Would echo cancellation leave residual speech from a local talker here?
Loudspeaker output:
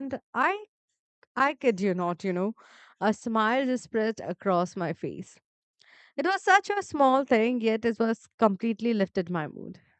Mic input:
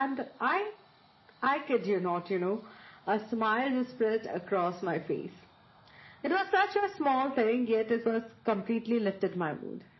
No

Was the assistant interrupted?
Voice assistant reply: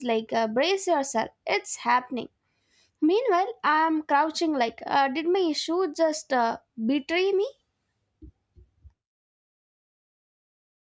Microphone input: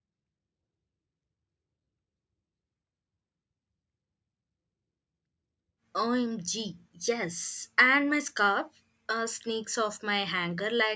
Yes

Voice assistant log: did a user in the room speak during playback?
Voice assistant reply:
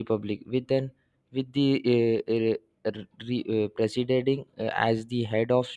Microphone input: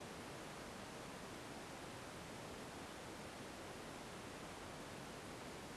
No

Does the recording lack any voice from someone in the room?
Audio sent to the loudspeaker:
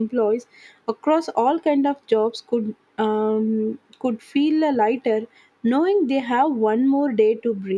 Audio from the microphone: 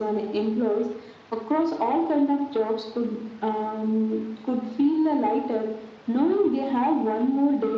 Yes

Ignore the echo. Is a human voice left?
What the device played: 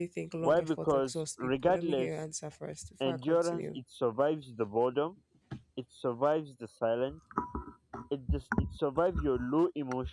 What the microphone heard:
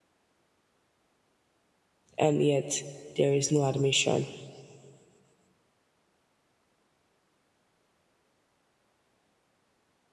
Yes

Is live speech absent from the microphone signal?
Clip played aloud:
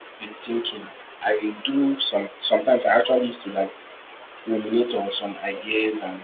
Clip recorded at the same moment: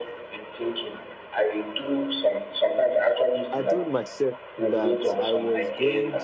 No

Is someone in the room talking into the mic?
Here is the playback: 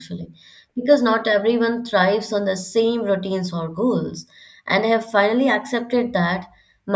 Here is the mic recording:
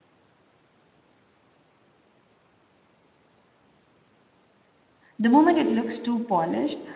Yes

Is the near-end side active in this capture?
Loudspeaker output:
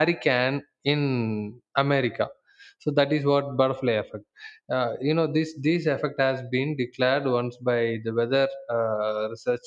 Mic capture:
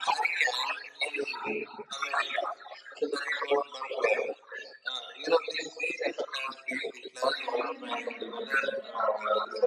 Yes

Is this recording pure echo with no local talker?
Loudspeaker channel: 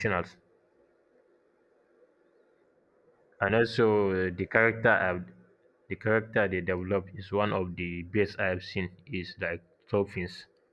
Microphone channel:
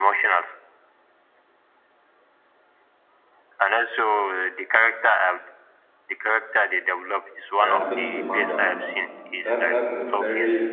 No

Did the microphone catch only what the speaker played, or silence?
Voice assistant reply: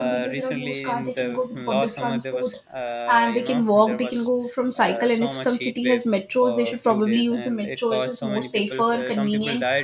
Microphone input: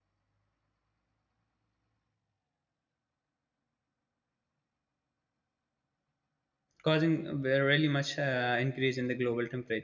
No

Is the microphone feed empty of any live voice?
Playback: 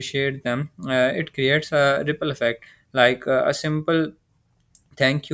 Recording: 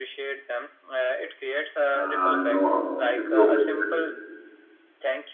No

